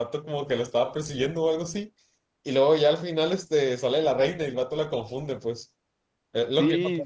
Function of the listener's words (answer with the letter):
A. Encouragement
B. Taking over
B